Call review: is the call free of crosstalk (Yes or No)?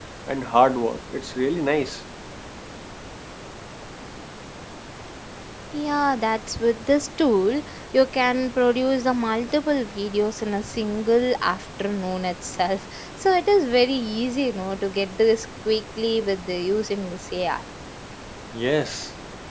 Yes